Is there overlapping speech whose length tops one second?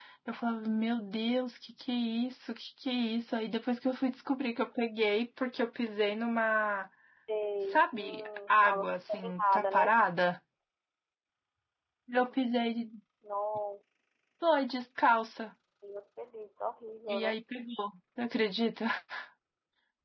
Yes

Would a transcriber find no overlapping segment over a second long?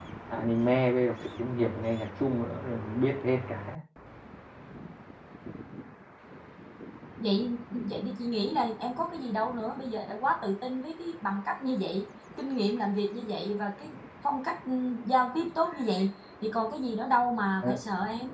Yes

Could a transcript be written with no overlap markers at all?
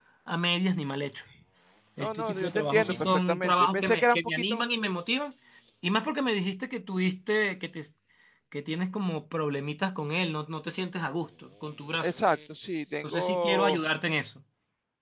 No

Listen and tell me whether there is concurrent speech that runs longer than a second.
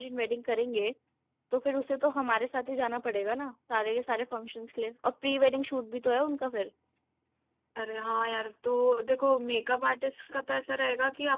No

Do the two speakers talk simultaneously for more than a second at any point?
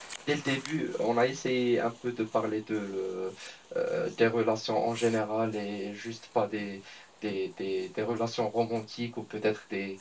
No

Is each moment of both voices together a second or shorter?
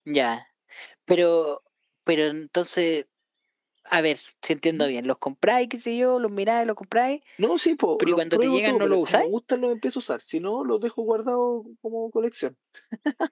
No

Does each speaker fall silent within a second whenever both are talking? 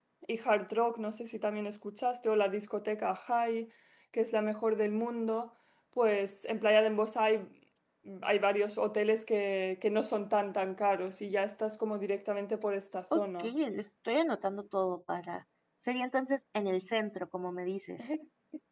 Yes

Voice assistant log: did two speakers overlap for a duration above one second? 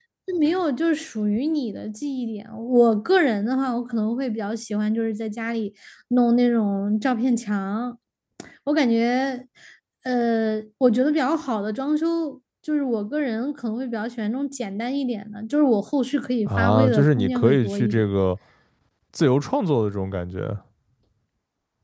Yes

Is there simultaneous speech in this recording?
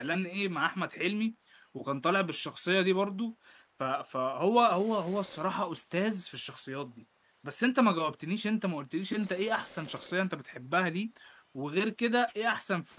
No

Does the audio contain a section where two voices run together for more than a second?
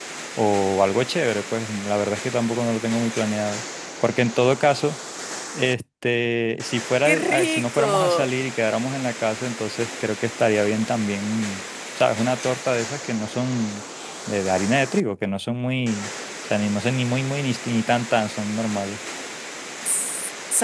Yes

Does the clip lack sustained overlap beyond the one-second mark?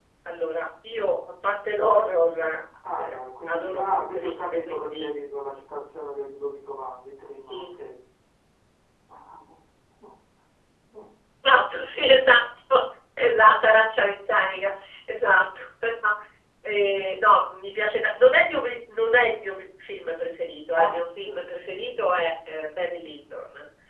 No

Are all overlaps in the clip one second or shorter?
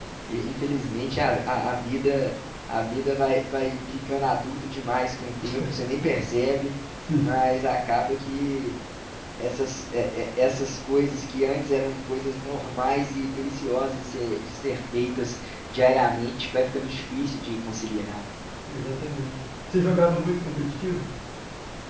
Yes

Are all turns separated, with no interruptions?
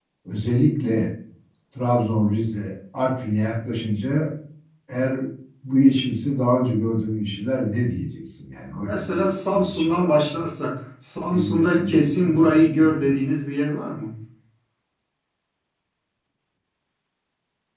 No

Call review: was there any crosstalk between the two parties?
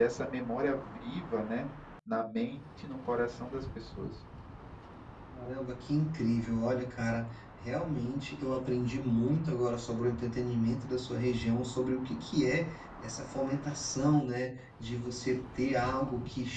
No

